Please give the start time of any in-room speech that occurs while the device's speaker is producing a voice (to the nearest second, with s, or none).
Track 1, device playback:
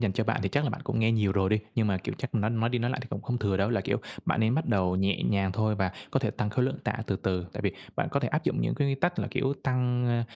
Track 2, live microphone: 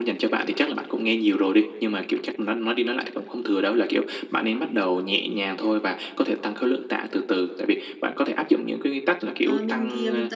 9 s